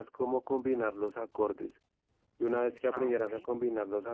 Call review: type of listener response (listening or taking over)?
listening